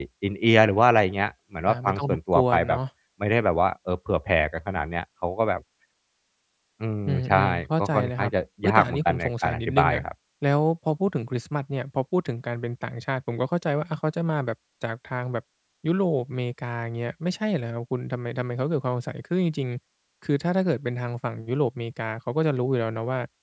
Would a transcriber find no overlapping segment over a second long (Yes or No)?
No